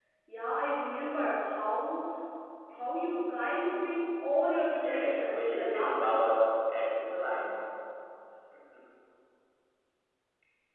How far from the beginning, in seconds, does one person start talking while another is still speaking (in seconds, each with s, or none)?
4.8 s